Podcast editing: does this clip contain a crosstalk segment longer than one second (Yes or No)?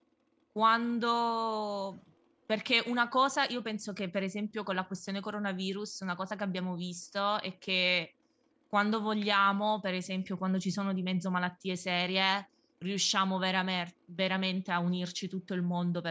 No